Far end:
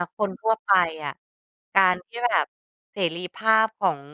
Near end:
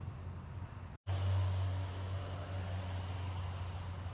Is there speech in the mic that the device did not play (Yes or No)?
No